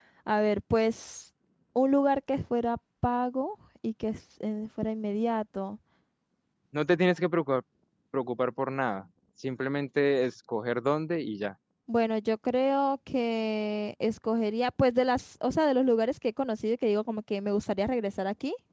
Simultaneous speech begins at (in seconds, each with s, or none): none